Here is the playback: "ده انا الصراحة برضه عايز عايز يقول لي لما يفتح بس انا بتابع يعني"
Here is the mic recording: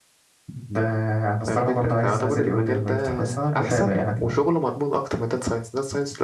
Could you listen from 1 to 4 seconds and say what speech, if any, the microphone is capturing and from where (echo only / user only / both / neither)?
both